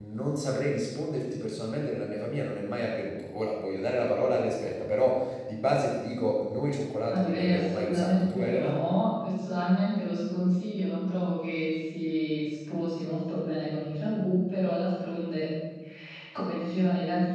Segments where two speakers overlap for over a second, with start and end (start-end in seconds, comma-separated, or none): 7.1-8.8